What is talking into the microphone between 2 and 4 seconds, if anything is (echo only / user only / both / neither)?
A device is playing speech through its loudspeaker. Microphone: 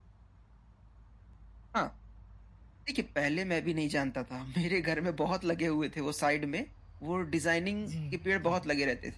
echo only